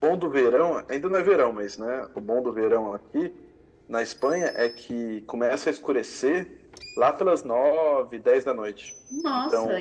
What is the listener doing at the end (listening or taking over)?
taking over